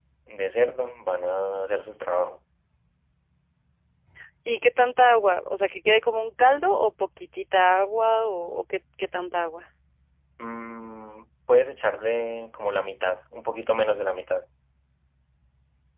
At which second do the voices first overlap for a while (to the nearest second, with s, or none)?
none